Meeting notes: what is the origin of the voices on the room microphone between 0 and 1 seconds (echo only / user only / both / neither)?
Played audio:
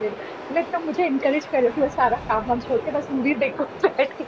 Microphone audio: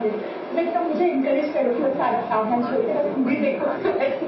echo only